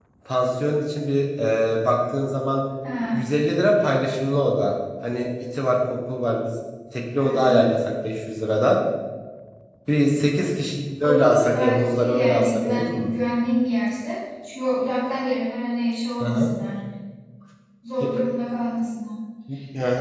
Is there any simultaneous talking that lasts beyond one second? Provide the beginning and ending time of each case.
11.0-13.1

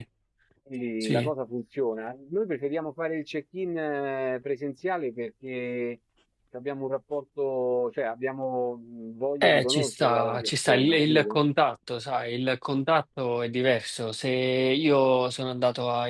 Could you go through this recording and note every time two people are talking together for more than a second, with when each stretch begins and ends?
9.4-11.4

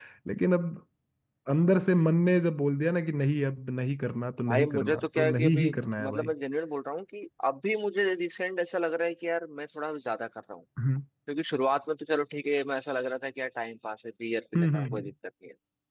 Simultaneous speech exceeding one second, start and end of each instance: 4.5-6.3

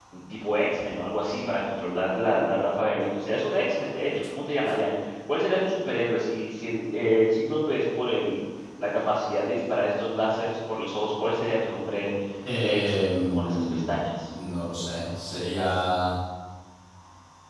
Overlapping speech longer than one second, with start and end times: 12.6-13.9

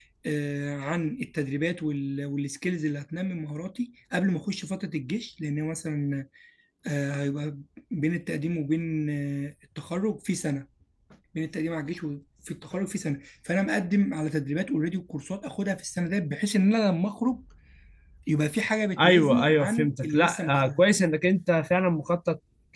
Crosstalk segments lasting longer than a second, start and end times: 19.0-20.8

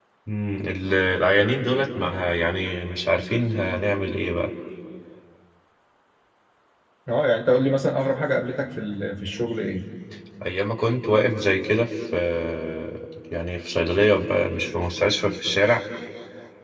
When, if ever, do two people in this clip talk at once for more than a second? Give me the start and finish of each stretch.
none

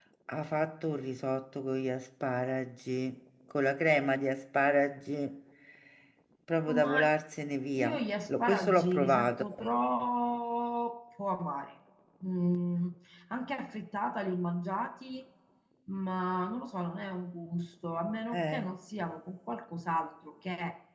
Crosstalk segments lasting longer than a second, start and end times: 7.7-9.4

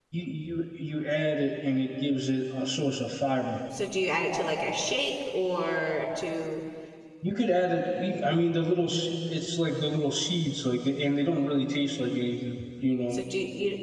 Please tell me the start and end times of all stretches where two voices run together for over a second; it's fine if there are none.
none

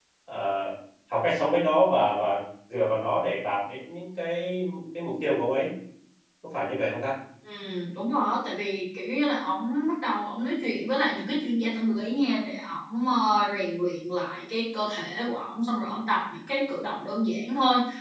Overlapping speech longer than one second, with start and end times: none

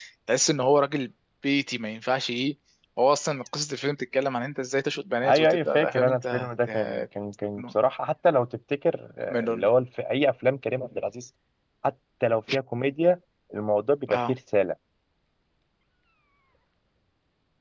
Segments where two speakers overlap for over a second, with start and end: 5.3-7.0

